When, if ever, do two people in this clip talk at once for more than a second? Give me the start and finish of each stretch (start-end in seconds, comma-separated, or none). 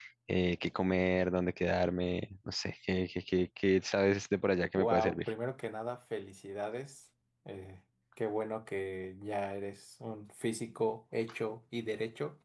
none